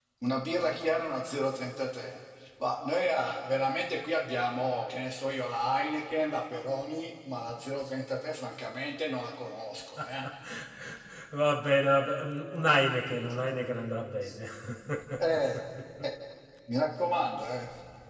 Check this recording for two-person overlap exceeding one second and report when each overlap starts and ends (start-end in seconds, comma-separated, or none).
none